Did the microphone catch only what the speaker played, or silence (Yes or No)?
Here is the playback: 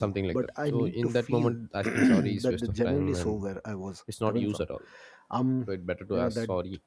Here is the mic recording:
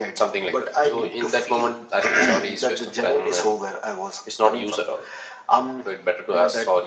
Yes